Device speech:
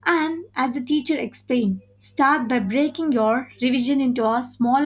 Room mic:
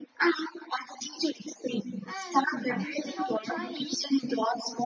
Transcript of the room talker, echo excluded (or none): and instead of trying